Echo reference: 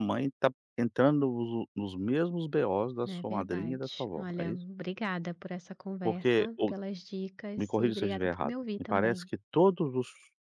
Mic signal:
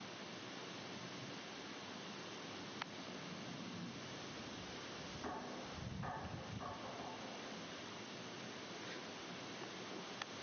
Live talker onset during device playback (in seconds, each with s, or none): none